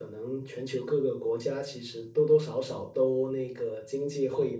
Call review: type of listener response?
listening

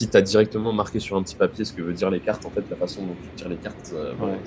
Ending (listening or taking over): listening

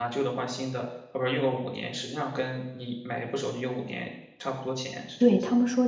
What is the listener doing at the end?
taking over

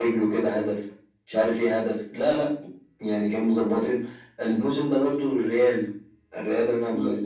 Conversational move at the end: taking over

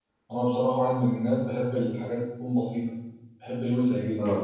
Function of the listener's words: listening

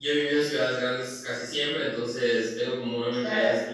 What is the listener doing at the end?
listening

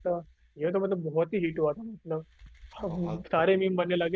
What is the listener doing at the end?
listening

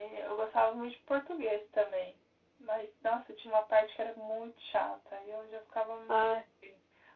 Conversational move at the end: listening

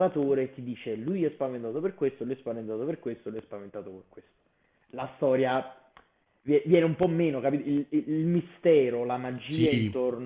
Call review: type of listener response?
listening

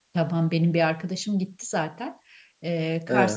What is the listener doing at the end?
listening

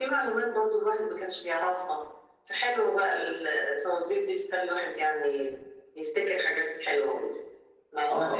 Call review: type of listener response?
taking over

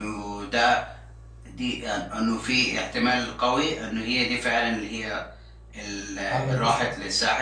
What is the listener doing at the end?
listening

